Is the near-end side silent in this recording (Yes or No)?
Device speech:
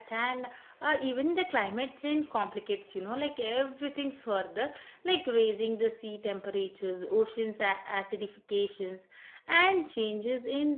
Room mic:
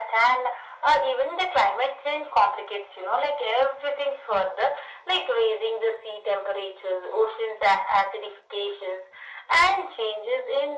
Yes